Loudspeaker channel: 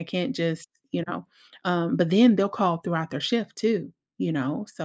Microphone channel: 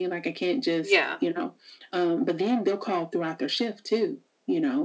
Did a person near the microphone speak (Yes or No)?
Yes